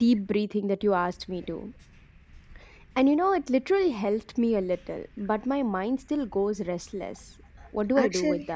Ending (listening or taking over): taking over